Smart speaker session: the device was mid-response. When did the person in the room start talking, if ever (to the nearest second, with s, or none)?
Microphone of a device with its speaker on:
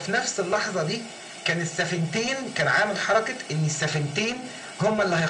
none